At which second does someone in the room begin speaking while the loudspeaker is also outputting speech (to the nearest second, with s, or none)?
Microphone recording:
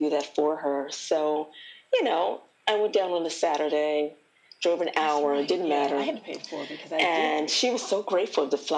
5 s